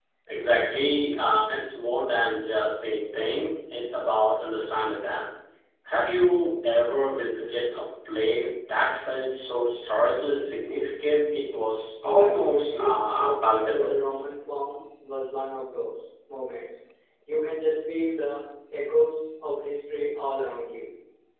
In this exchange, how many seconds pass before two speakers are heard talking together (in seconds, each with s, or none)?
12.0 s